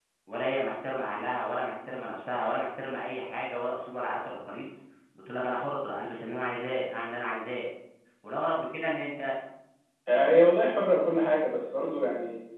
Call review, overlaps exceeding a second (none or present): none